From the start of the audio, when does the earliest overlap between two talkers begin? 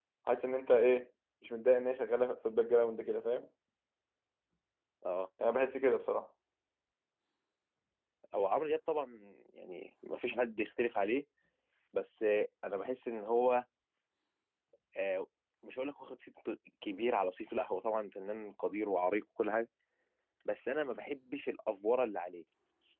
none

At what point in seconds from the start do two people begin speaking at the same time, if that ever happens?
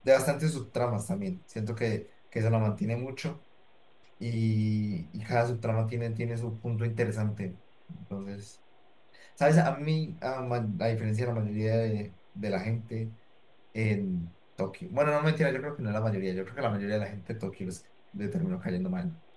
none

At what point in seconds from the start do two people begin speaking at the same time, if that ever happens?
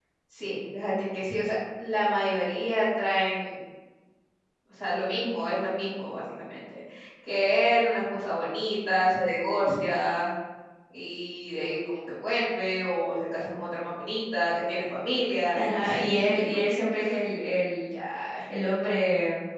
16 s

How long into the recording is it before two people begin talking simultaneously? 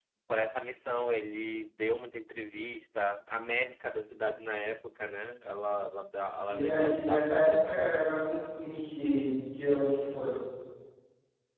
6 s

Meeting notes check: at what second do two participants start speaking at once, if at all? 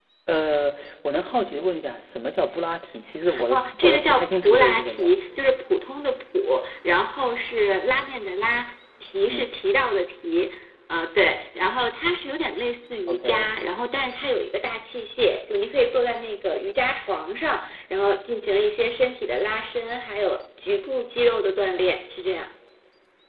3 s

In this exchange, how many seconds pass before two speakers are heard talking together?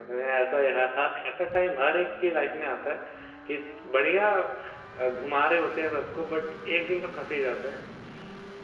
none

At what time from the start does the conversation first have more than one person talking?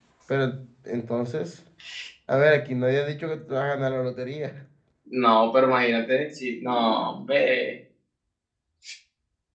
none

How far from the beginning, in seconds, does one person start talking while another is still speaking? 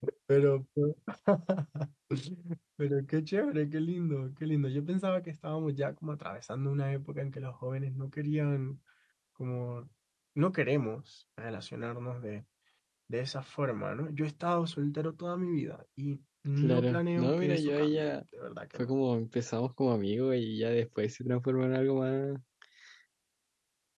17 s

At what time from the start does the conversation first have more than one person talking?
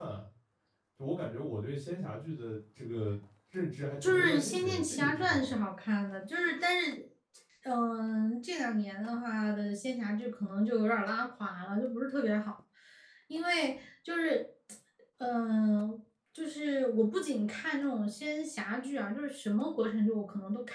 4 s

